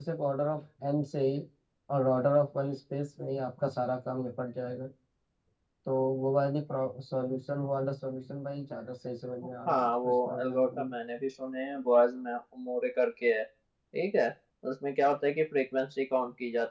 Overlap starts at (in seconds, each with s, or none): 9.7 s